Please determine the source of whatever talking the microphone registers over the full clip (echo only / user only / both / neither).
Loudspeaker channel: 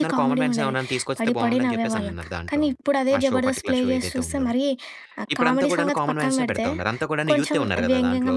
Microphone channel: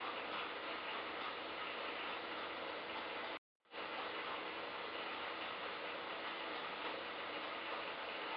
neither